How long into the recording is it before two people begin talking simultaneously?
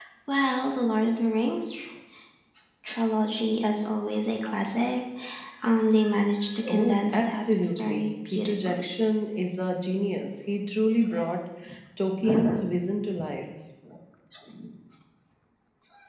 6.7 s

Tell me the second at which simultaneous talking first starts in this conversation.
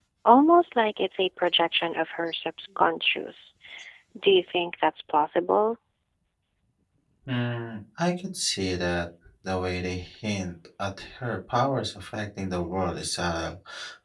none

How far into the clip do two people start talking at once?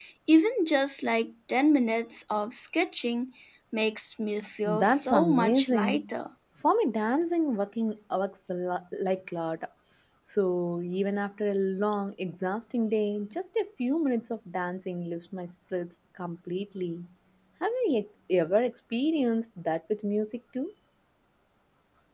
4.6 s

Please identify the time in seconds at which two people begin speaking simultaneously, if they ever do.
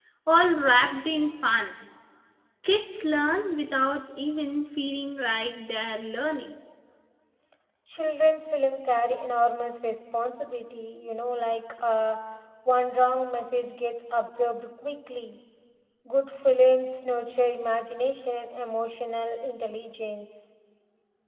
none

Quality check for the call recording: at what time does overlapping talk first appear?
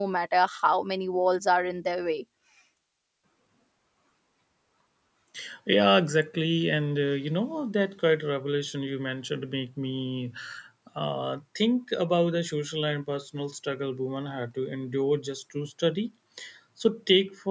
none

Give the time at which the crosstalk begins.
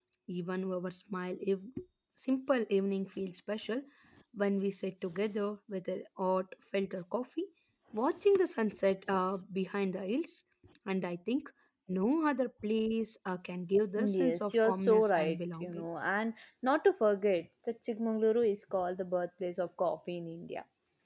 14.0 s

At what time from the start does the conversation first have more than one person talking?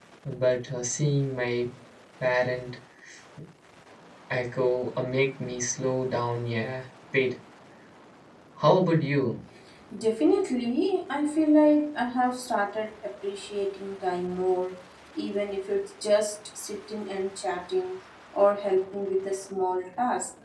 none

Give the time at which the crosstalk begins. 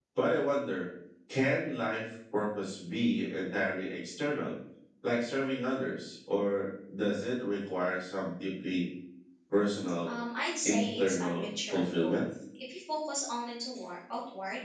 10.7 s

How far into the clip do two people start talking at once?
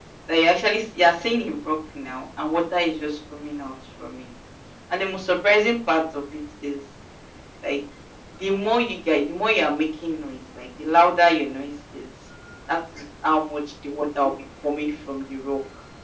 none

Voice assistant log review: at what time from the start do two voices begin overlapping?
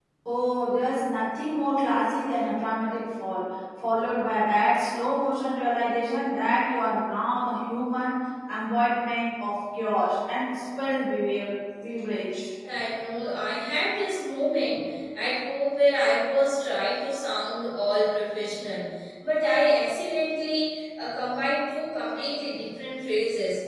none

